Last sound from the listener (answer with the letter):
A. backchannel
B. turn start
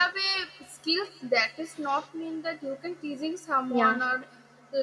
A